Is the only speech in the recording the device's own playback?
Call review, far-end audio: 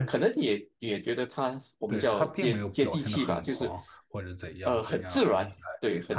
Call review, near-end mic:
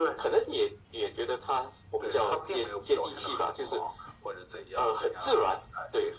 Yes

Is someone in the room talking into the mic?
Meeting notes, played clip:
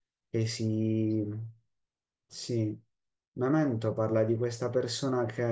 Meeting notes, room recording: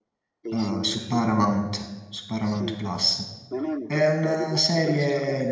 Yes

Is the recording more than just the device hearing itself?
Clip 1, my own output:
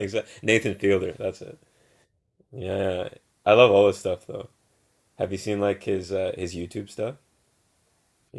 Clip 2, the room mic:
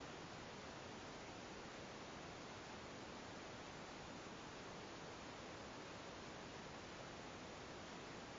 No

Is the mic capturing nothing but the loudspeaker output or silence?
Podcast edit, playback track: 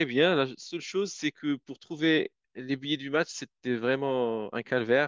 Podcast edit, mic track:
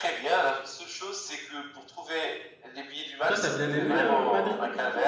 No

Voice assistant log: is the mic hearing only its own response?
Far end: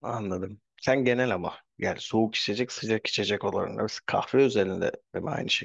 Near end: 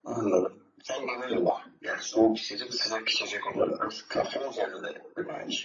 Yes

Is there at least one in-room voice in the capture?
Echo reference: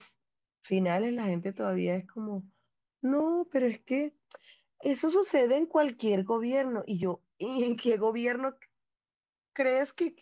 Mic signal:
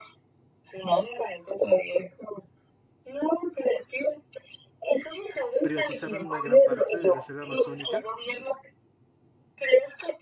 Yes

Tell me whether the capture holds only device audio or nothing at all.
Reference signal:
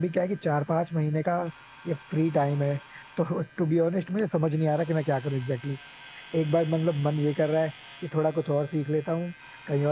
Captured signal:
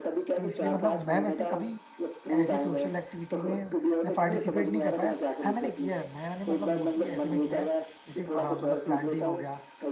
No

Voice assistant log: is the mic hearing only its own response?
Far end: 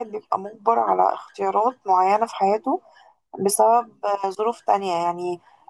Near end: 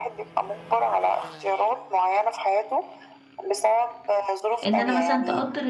No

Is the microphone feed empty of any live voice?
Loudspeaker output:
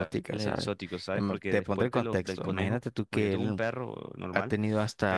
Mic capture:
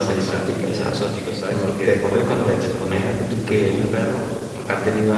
Yes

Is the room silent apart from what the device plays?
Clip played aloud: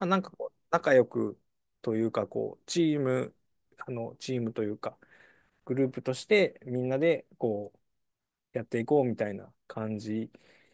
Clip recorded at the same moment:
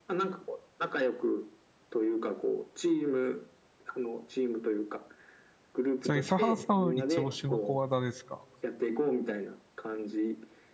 No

